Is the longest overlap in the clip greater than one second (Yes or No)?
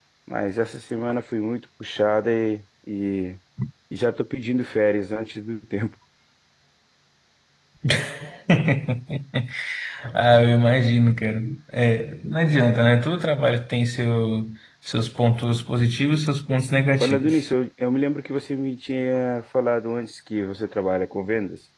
No